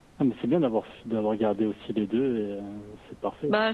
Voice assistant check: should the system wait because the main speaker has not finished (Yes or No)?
No